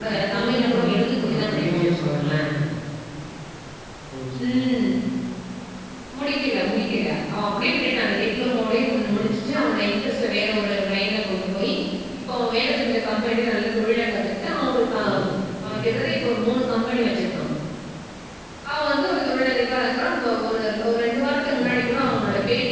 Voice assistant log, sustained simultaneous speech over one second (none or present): present